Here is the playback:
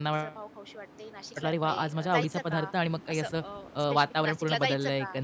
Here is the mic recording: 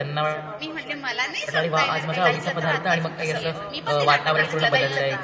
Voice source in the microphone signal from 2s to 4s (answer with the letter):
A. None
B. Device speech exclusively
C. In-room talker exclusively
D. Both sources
D